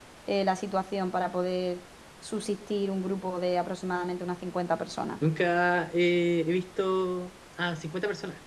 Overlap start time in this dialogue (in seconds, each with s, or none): none